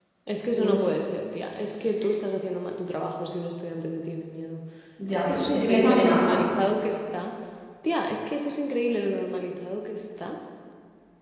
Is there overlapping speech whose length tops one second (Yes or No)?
Yes